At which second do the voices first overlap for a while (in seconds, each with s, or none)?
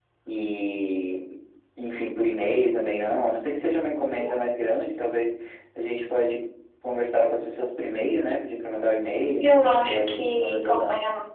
9.4 s